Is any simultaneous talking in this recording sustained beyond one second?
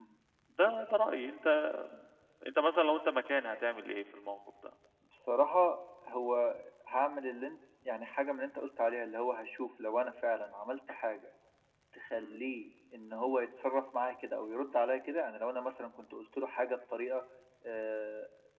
No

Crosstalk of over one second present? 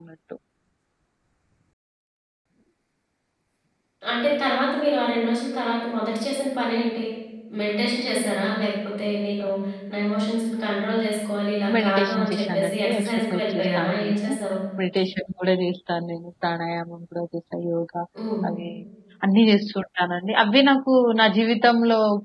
Yes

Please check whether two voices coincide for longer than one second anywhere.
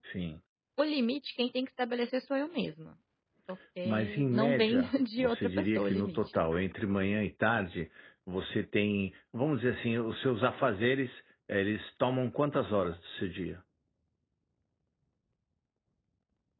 Yes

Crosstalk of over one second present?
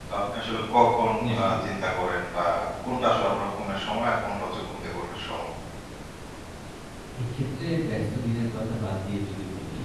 No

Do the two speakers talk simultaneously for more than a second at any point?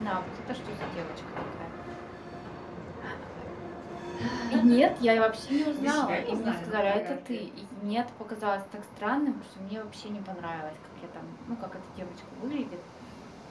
Yes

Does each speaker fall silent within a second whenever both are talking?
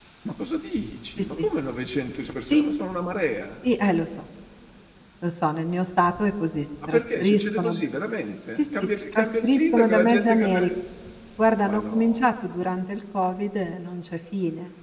No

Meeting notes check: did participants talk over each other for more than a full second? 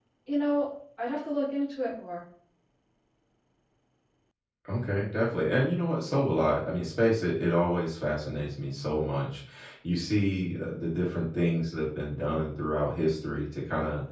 No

